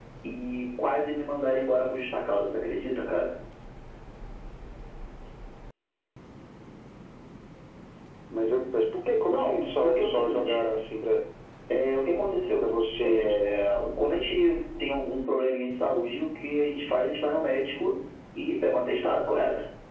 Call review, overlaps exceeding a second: present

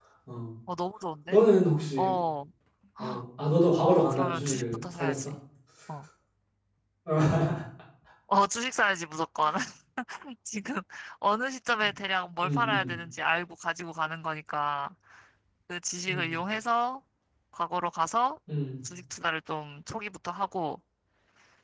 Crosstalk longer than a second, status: present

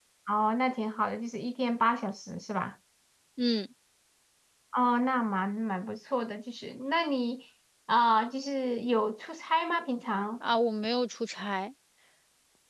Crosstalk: none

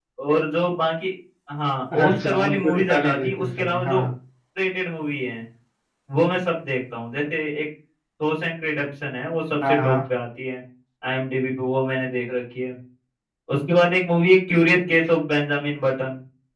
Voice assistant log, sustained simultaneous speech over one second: present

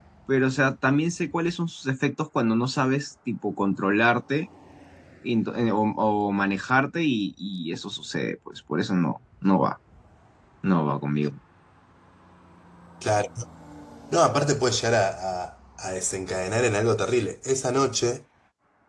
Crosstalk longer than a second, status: none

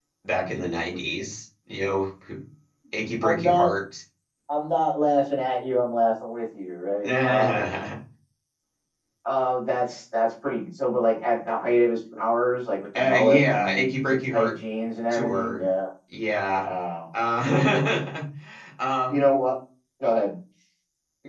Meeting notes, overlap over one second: present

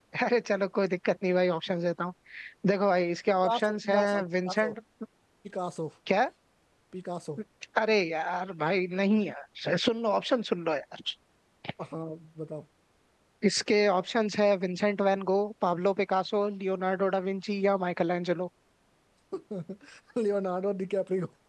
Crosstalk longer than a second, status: present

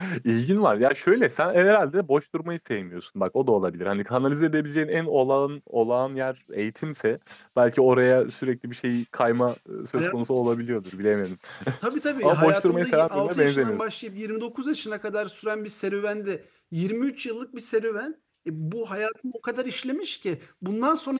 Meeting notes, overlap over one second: present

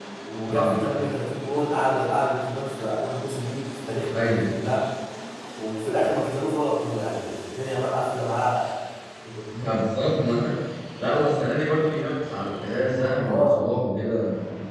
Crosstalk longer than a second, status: none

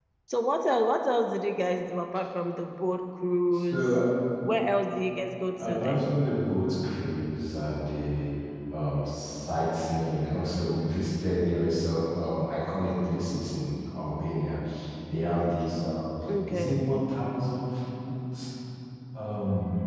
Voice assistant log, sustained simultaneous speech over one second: none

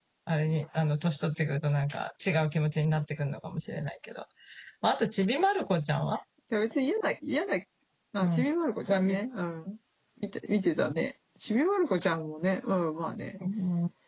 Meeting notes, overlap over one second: none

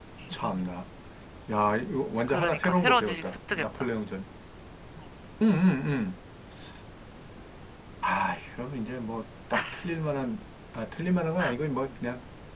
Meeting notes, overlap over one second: present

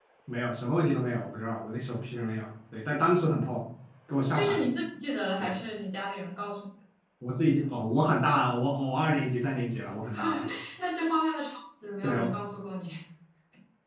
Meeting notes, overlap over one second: none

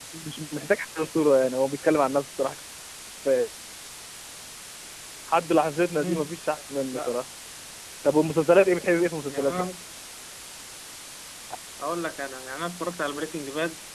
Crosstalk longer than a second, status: none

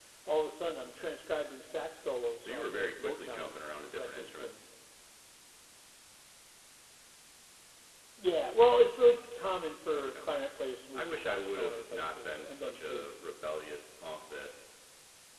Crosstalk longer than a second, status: present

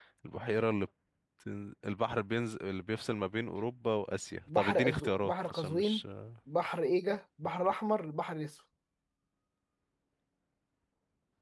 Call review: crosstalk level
present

